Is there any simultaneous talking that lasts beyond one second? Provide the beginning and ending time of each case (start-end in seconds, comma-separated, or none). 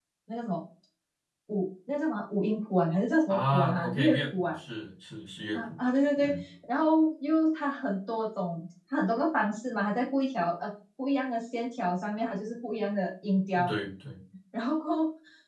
3.3-4.6